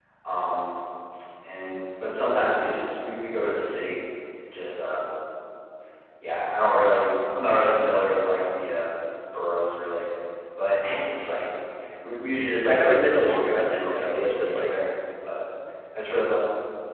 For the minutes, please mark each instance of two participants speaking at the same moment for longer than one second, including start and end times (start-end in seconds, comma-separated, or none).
12.7-14.7